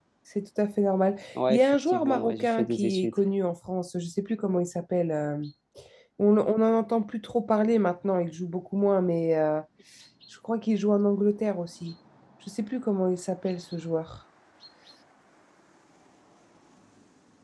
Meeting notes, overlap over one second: present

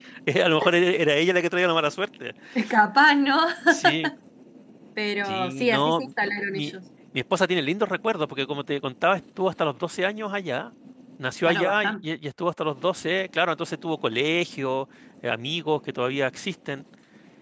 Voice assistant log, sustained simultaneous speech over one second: present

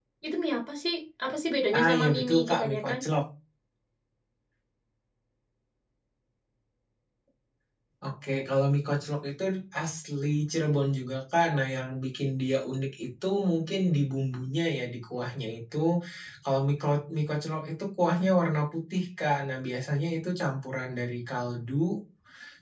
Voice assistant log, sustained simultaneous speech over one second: present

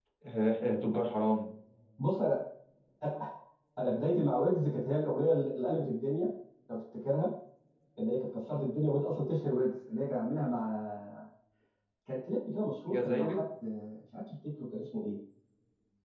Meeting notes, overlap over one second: none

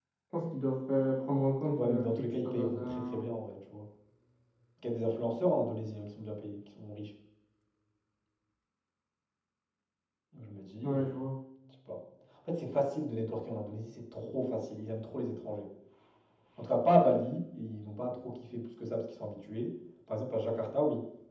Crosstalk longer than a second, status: present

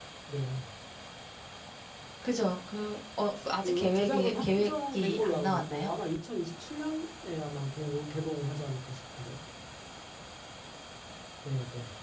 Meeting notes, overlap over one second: present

